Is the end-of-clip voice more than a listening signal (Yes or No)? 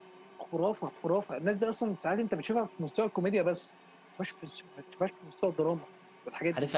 Yes